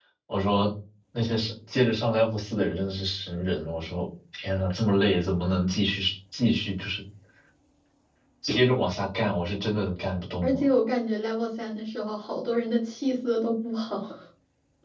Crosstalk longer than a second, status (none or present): none